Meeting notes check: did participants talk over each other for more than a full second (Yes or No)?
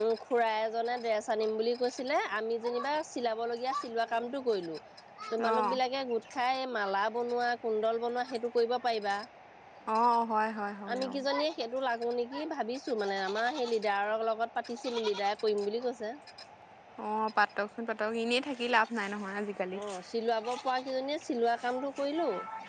No